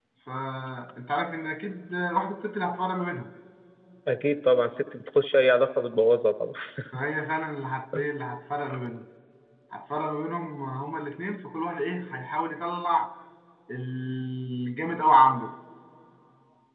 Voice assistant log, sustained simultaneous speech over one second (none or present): none